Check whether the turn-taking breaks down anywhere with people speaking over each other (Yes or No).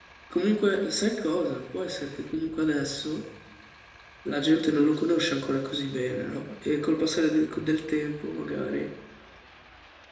No